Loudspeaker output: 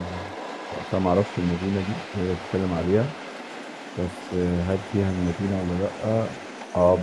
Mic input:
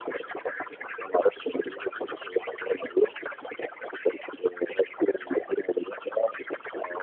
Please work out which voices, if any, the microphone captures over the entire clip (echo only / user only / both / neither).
echo only